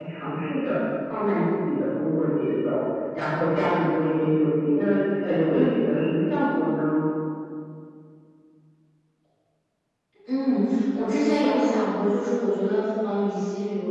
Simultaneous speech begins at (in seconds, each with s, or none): none